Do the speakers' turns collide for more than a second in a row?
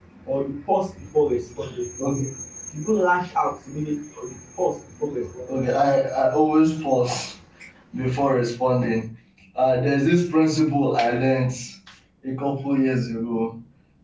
No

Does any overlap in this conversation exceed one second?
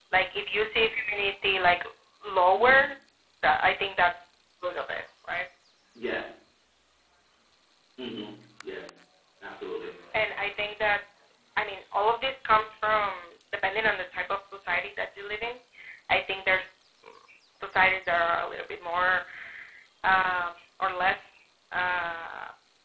No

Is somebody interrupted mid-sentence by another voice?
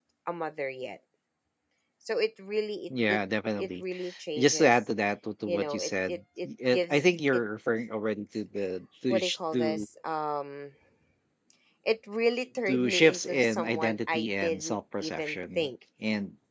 Yes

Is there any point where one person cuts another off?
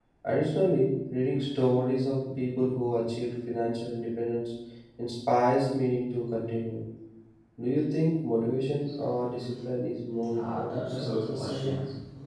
Yes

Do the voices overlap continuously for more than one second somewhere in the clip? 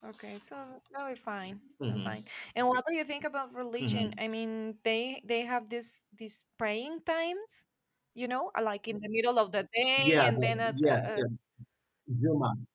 Yes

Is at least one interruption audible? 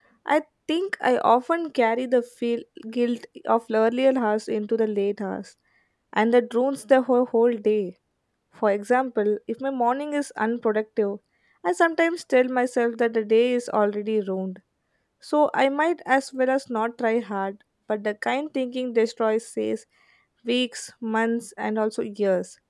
No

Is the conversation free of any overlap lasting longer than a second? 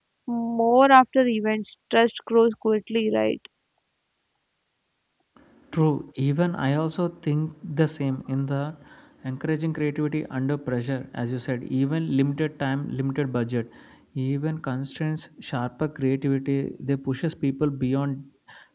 Yes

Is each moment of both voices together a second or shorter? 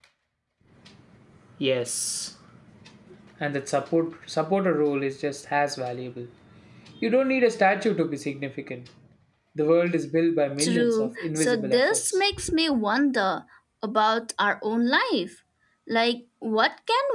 No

